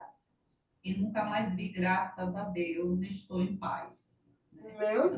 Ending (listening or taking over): taking over